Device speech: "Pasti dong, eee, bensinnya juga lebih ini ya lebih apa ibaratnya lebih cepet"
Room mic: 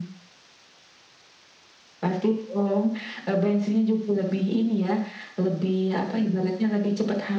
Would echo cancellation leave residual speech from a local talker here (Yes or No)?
No